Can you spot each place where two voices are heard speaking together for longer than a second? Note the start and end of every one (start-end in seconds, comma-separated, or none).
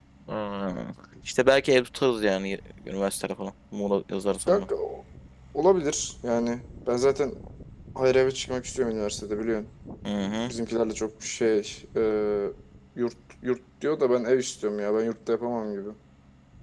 none